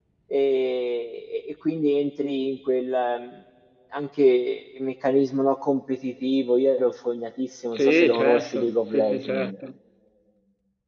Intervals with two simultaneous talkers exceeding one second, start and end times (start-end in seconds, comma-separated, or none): 7.7-9.5